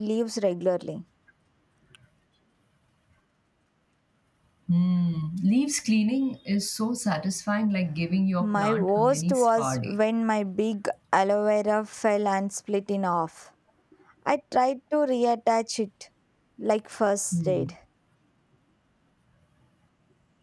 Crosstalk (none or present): present